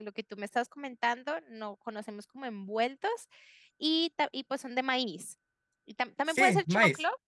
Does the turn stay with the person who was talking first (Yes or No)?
Yes